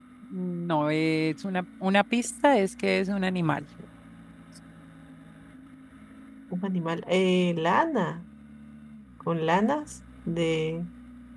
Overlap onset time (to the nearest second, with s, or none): none